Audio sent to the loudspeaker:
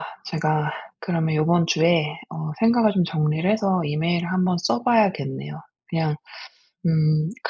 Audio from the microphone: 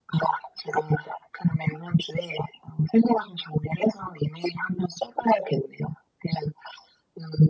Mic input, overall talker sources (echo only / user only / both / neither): echo only